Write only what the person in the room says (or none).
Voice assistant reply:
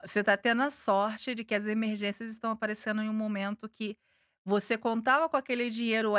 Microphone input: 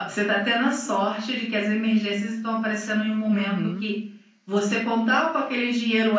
Uhum.